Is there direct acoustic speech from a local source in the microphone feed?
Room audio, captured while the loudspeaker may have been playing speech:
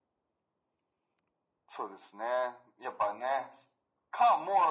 No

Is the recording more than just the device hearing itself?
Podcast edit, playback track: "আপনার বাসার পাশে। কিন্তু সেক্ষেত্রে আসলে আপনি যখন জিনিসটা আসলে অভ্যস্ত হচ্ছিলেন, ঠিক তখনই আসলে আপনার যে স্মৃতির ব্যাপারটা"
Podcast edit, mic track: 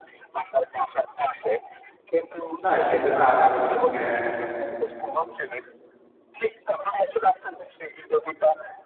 Yes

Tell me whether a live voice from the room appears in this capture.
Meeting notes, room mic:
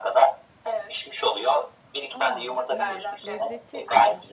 Yes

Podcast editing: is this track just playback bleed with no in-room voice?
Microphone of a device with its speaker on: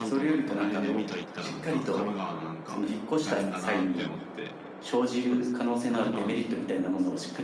No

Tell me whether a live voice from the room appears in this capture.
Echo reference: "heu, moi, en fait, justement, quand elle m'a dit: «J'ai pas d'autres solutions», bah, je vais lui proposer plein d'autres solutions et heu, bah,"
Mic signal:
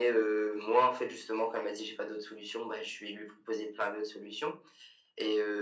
No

